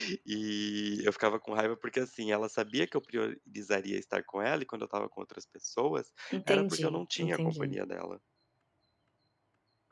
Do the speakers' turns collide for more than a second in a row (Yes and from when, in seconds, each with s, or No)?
Yes, from 6.3 s